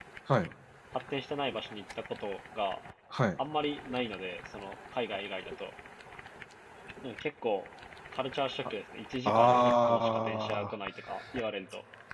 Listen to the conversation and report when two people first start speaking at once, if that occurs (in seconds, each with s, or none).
9.2 s